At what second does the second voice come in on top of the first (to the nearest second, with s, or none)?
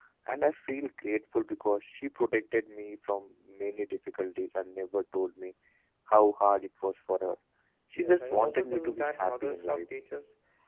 8 s